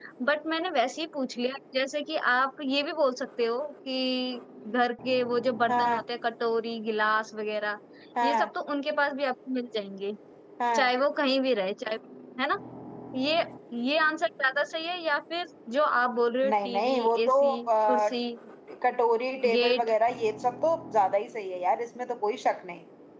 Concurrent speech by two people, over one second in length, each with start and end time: 16.4-18.1

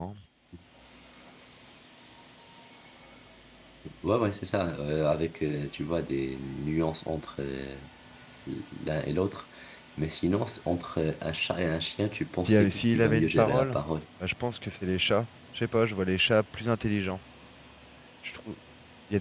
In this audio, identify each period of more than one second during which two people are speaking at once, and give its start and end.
12.4-13.8

